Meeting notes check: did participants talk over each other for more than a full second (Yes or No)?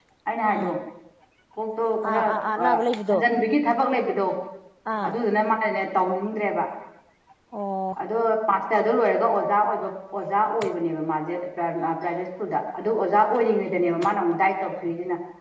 No